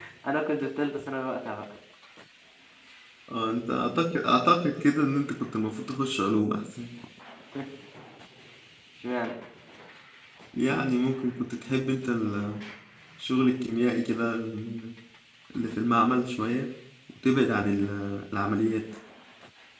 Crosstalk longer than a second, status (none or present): none